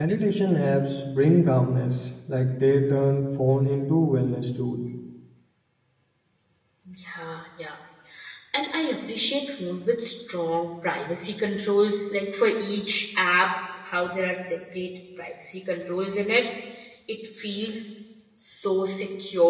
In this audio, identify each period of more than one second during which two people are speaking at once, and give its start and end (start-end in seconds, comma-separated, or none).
none